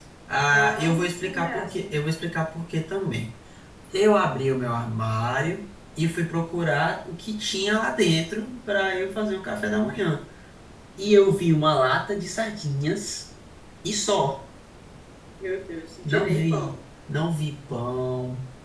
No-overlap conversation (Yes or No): No